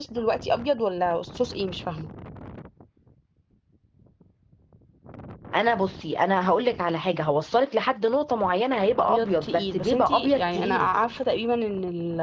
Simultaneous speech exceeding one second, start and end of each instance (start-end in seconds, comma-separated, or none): 9.0-10.9